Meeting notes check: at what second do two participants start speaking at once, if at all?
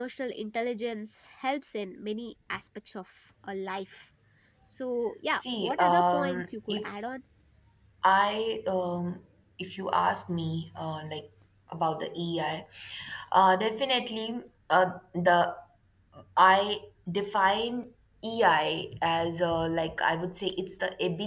5.3 s

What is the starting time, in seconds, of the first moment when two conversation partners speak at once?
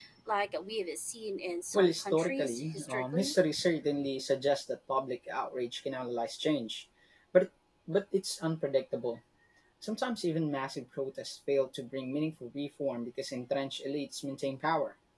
1.7 s

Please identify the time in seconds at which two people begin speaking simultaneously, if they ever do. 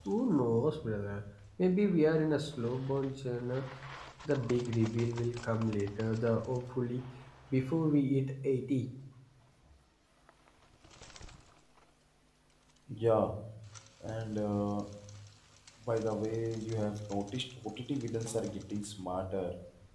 none

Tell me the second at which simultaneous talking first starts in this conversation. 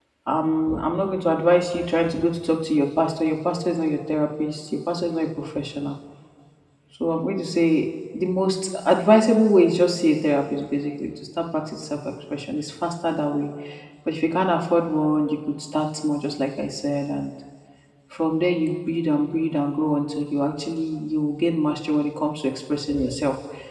none

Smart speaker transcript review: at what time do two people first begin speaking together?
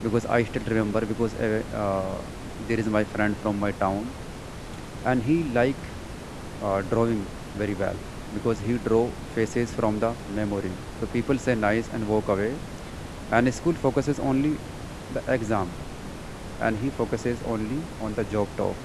none

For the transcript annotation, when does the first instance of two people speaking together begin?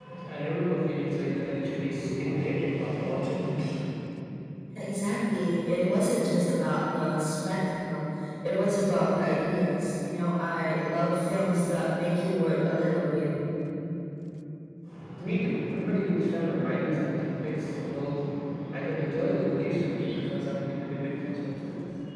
none

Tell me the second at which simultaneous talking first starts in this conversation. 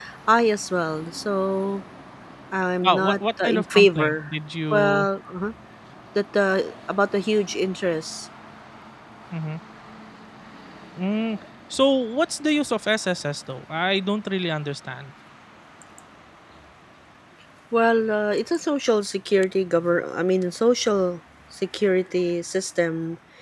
2.8 s

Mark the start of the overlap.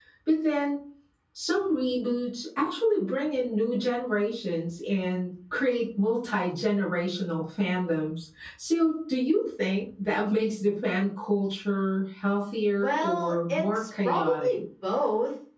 12.8 s

